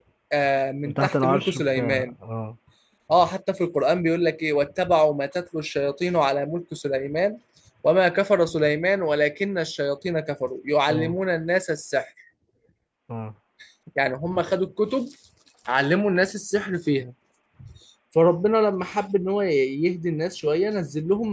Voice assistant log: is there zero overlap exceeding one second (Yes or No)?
No